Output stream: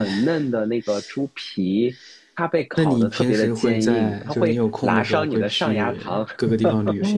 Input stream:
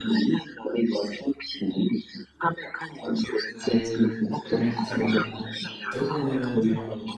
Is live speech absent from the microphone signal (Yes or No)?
No